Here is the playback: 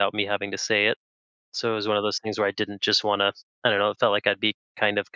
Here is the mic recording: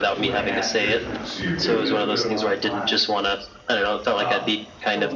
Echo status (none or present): present